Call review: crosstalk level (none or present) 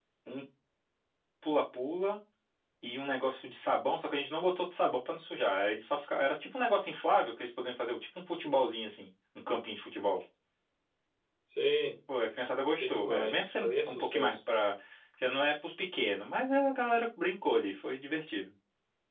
present